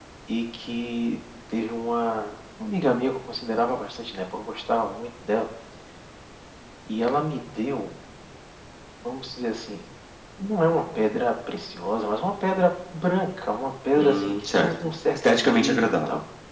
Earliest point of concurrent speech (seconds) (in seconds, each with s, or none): 14.0 s